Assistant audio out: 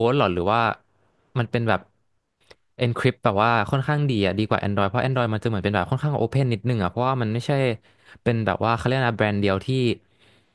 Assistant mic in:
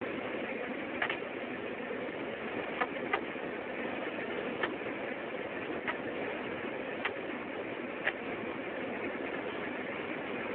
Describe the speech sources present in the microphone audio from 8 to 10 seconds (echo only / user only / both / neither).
neither